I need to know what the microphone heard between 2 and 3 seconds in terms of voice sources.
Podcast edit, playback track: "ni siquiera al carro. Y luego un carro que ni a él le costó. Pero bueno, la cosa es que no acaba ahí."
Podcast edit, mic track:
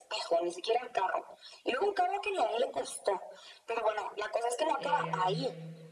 echo only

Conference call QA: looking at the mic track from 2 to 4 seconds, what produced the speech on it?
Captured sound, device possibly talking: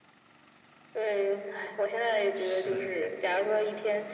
both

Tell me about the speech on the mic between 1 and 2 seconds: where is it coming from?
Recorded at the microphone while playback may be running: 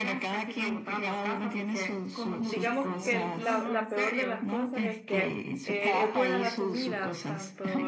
echo only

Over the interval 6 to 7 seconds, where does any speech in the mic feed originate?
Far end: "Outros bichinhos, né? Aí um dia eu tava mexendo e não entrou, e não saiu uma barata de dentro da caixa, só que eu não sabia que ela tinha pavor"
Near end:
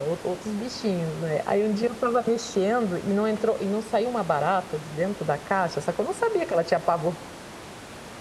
echo only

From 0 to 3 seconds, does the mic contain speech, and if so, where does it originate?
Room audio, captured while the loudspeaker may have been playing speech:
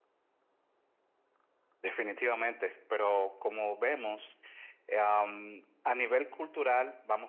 echo only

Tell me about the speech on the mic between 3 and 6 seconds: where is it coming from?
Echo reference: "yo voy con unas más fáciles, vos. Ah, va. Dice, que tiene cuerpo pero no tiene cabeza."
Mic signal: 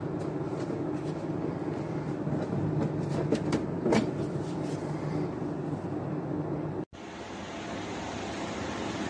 neither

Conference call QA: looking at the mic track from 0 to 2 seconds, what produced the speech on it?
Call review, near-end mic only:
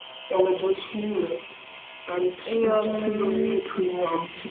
echo only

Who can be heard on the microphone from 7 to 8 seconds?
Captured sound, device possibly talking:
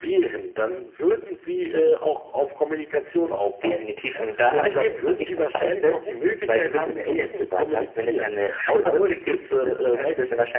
both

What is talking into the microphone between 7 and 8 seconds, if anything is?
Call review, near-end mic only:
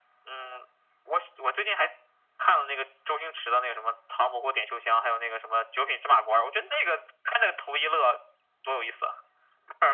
echo only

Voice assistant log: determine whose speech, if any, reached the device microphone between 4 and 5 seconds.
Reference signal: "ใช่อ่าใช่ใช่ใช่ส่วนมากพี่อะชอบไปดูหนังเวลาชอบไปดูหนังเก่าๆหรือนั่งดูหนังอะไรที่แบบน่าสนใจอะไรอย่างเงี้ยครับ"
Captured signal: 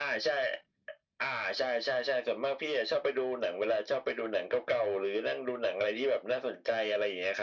echo only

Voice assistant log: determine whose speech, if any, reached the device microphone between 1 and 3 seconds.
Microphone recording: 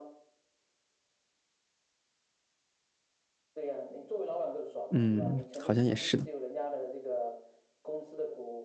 neither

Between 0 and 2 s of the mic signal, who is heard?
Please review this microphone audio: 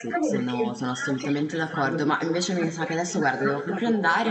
both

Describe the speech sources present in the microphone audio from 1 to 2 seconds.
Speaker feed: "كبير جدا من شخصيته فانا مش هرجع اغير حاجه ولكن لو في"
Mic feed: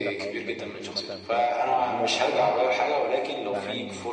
both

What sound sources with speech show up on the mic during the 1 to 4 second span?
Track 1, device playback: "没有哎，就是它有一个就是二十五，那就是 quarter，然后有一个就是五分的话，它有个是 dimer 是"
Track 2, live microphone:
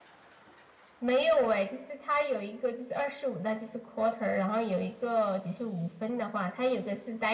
echo only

